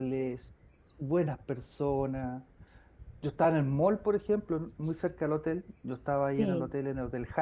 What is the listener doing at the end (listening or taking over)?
listening